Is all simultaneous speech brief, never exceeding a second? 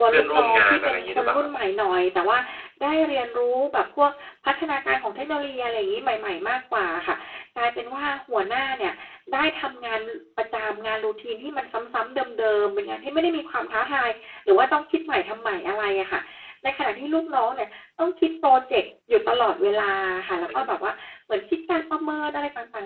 No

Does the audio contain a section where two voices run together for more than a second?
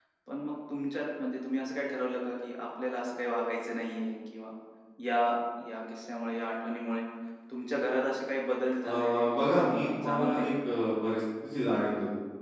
Yes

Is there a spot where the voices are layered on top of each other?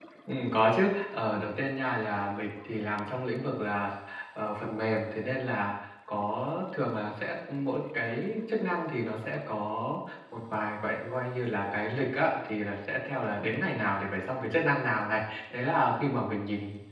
No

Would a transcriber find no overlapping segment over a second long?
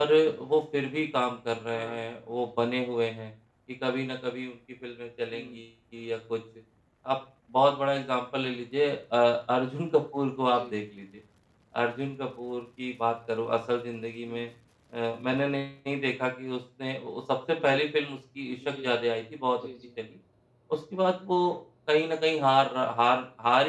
Yes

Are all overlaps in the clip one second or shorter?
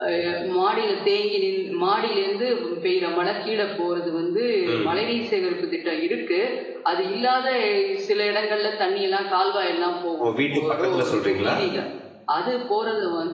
No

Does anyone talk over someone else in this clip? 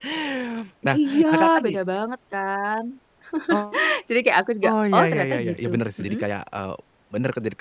Yes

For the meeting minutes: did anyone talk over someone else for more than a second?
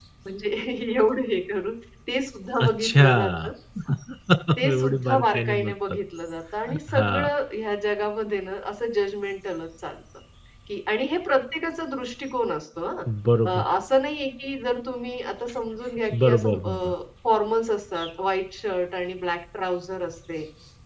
Yes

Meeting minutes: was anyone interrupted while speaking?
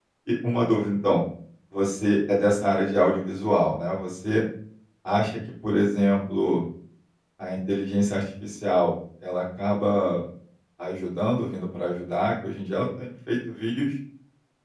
No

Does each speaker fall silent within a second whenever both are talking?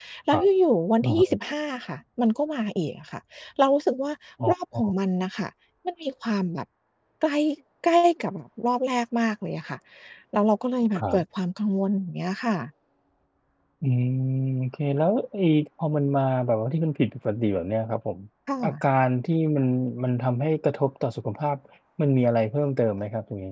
Yes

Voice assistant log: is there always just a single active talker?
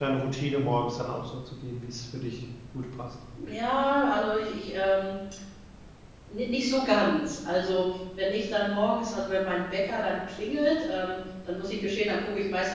Yes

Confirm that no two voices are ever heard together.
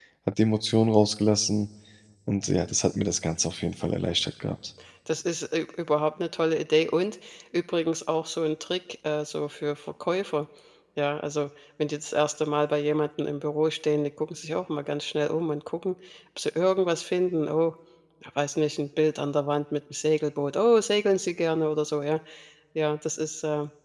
Yes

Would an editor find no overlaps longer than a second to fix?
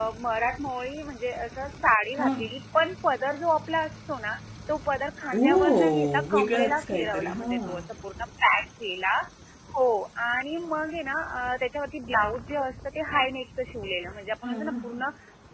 No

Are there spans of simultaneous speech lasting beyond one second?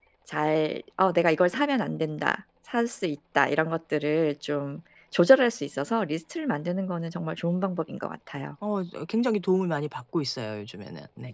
No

